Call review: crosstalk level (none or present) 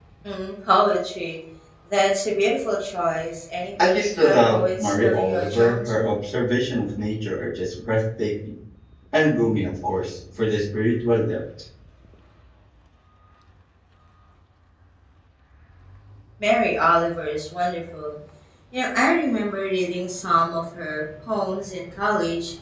present